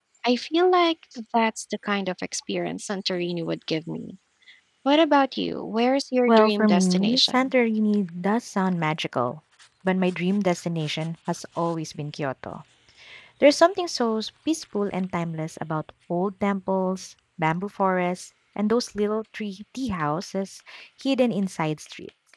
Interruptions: present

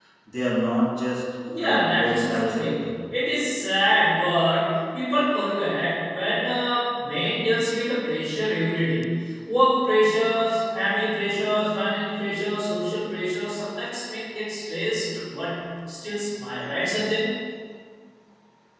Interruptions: present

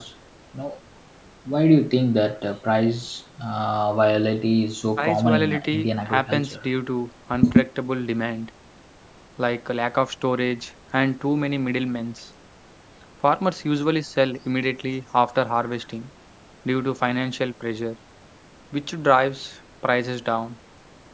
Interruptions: present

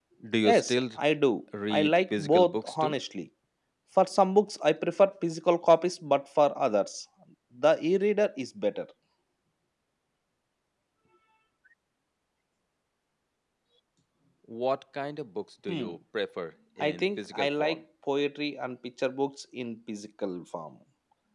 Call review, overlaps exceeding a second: present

